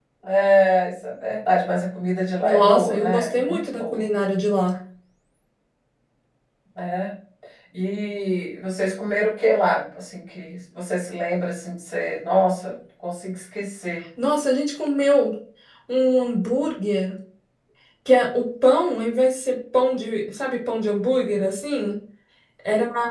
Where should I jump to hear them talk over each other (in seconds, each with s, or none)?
2.4 s